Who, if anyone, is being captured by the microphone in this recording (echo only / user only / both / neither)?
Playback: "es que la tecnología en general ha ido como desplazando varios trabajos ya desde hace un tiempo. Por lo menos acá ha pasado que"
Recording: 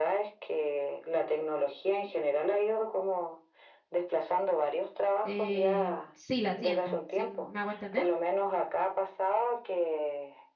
both